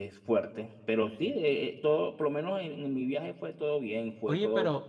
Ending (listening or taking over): taking over